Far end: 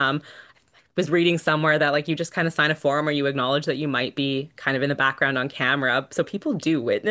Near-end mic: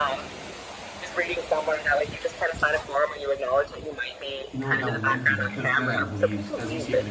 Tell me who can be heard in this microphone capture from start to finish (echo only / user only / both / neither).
both